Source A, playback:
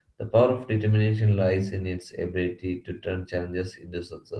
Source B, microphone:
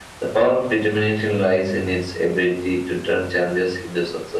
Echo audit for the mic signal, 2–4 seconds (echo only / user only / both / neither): echo only